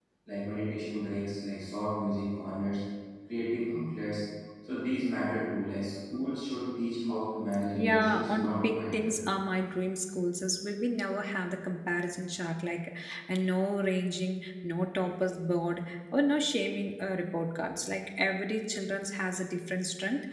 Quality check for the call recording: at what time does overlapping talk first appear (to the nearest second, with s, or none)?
8 s